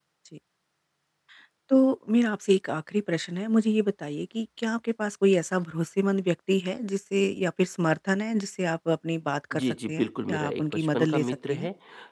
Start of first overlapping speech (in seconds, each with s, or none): 9.5 s